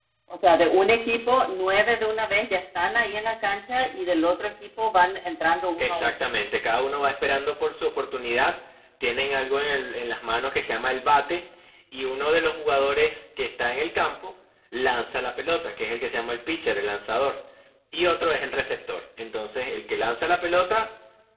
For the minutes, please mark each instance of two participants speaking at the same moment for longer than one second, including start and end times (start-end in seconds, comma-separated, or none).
none